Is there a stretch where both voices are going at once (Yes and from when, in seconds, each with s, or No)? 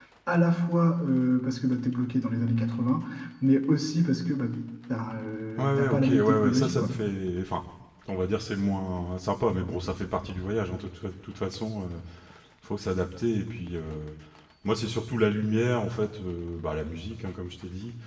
Yes, from 5.6 s